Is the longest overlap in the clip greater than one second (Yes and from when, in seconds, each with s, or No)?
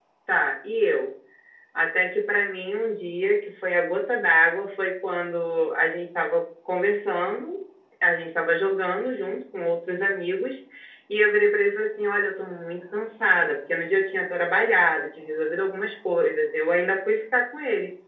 No